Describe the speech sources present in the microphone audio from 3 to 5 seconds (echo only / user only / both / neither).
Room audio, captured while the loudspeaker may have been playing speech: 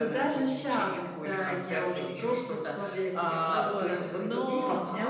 both